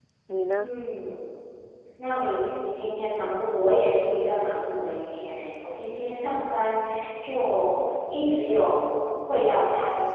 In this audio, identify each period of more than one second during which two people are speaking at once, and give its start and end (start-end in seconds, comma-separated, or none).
none